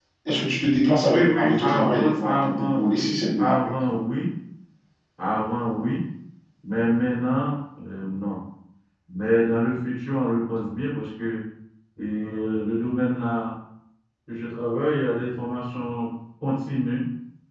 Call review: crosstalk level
present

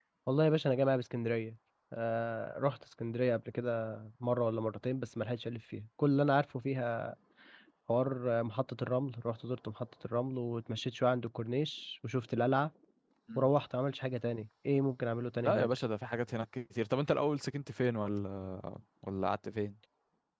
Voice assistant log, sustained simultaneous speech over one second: none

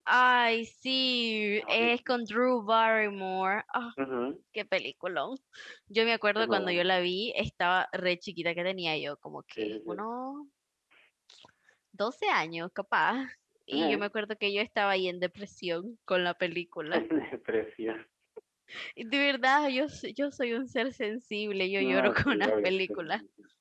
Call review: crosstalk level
present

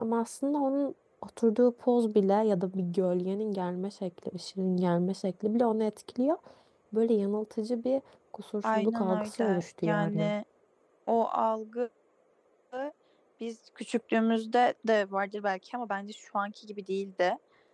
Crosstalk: present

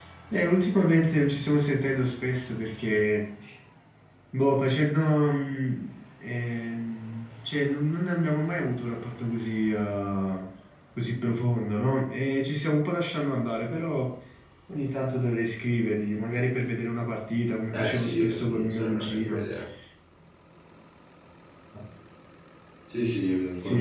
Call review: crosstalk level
present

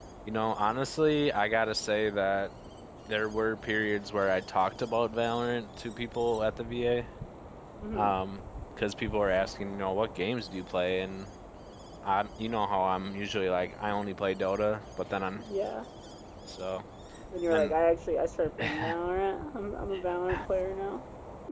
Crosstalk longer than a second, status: none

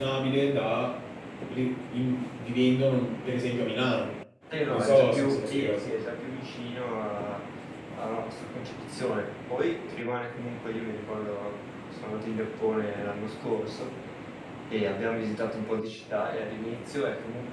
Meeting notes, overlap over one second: present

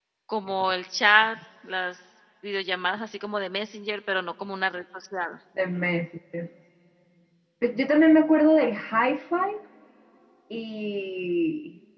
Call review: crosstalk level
none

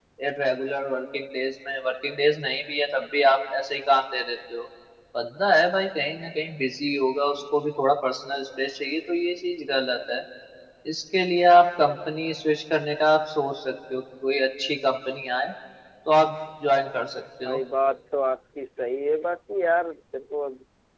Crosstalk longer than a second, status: none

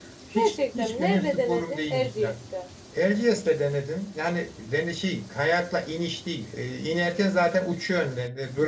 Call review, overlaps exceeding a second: present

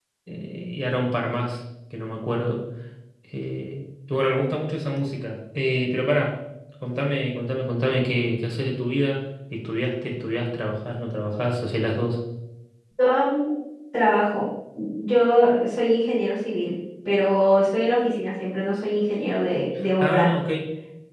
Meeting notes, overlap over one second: none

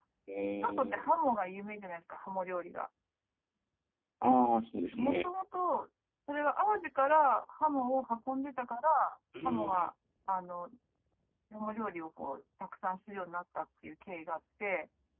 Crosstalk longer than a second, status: none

